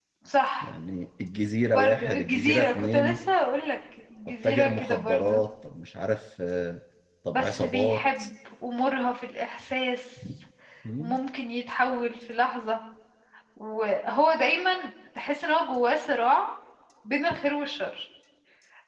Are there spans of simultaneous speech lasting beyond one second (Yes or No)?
Yes